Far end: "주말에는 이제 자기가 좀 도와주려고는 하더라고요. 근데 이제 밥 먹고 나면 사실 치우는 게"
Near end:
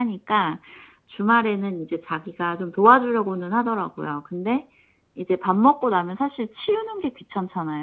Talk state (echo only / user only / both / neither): echo only